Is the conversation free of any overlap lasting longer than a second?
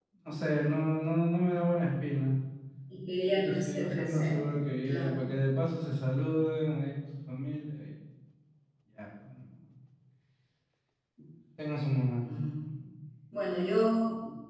No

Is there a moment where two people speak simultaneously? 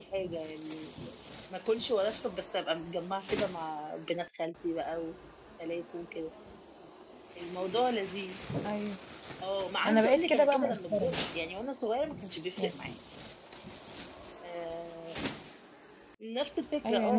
Yes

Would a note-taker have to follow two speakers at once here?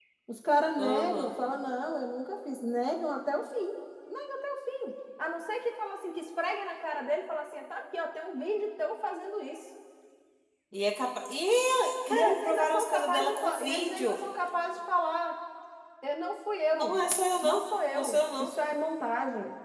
Yes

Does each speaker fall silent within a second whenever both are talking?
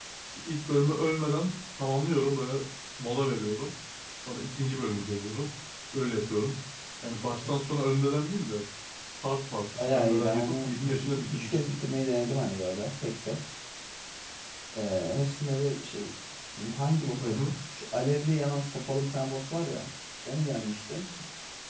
No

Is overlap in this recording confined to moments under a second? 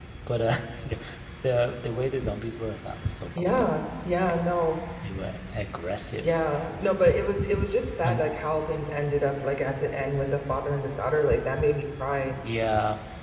Yes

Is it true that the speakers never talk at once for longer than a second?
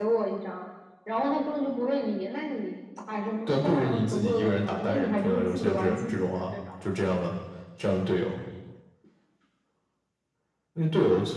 No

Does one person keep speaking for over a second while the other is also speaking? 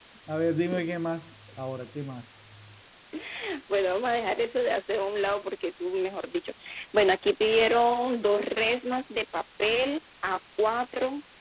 No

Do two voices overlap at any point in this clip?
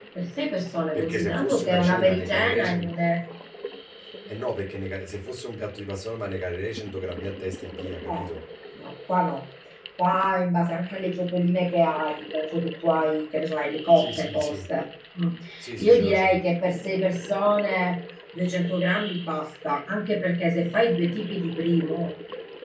Yes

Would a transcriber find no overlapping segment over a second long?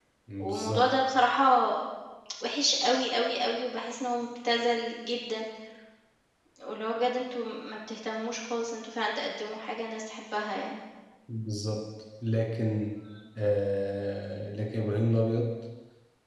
Yes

